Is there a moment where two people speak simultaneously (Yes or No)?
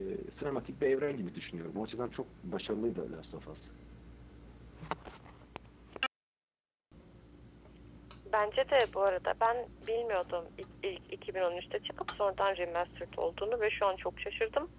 No